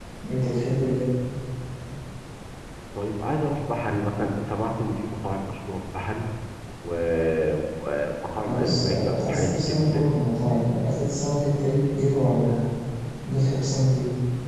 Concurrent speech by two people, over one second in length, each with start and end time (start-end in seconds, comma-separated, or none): 8.5-10.1